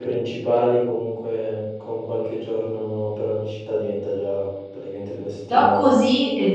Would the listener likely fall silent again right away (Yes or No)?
No